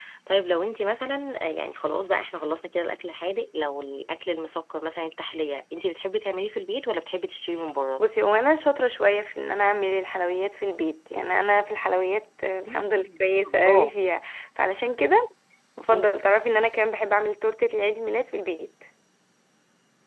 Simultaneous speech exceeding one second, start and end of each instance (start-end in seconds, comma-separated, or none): 12.7-13.9